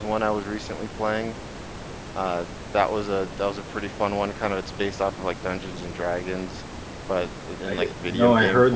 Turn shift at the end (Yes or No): Yes